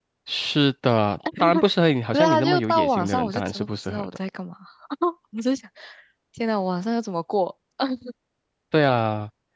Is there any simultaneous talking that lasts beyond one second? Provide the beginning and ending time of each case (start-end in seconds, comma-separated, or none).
2.1-4.1